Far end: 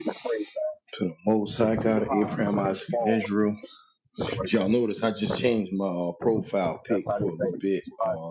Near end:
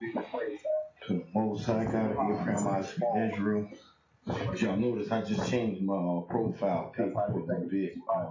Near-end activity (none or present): none